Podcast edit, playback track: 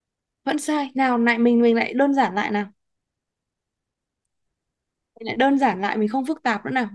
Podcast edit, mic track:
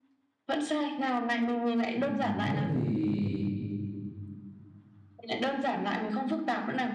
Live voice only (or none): ừ, thế thì